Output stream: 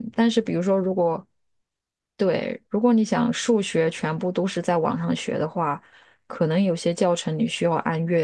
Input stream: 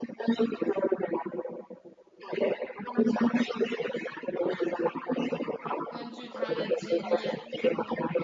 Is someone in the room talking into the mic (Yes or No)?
Yes